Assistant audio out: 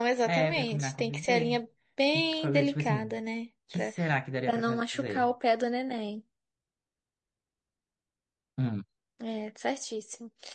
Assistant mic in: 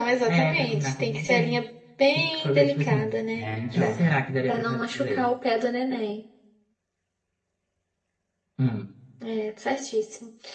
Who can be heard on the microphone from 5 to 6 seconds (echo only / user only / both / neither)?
echo only